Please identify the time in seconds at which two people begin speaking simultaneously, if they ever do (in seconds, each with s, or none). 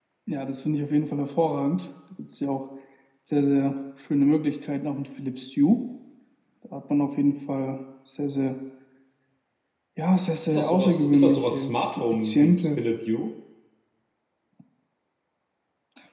10.4 s